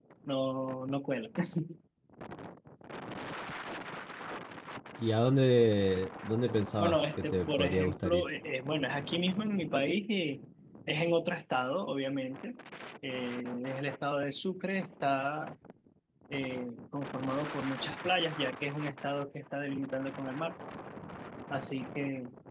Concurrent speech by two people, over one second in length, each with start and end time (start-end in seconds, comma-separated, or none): 6.8-8.2